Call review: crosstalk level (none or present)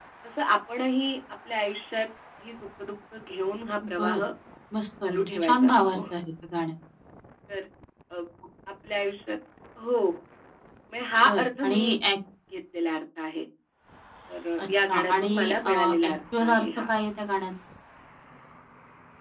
present